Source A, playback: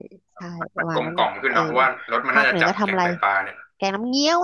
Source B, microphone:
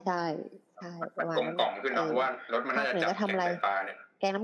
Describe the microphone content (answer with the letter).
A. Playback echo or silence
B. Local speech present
A